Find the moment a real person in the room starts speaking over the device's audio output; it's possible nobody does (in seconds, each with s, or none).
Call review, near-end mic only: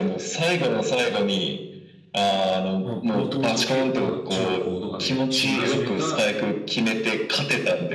2.8 s